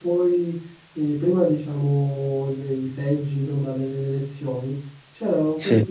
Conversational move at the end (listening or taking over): listening